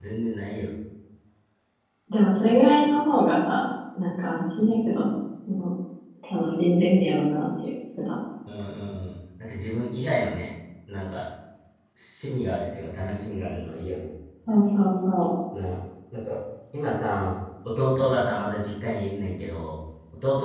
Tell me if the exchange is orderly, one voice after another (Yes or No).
Yes